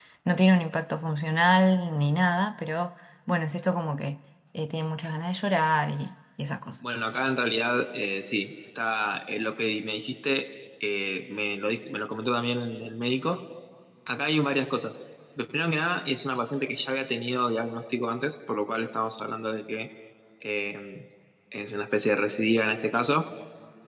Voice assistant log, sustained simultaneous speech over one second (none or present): none